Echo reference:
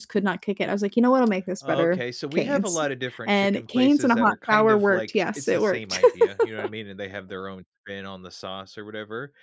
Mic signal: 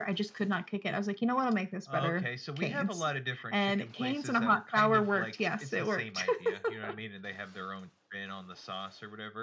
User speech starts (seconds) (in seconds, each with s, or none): none